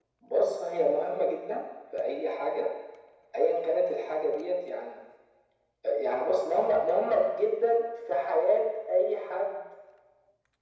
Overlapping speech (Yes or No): No